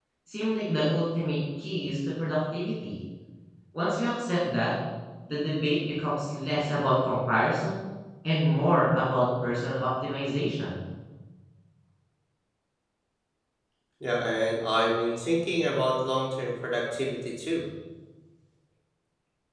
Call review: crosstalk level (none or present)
none